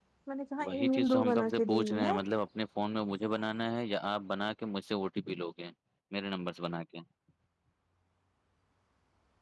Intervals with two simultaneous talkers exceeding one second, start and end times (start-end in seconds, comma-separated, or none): 0.7-2.1